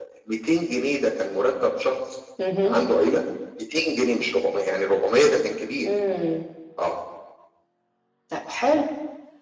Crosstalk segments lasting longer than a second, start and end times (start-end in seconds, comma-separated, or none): none